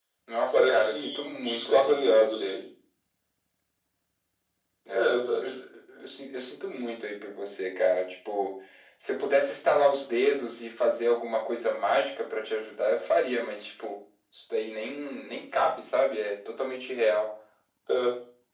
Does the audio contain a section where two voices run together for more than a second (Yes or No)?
Yes